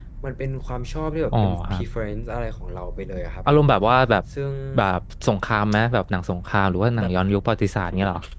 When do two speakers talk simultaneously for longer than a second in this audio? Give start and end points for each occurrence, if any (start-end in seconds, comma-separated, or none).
none